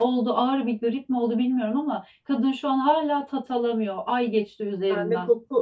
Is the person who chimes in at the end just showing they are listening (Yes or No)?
No